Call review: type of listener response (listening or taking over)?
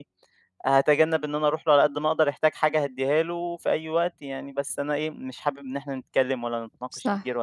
listening